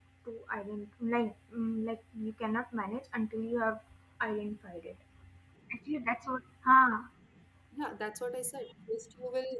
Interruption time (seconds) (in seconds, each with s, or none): none